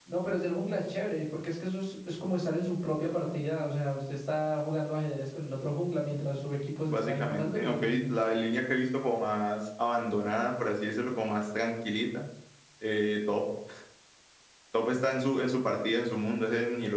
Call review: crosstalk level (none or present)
present